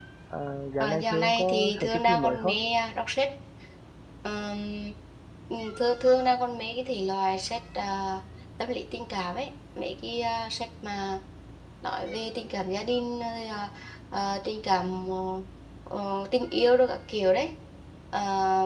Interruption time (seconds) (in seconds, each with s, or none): 0.8 s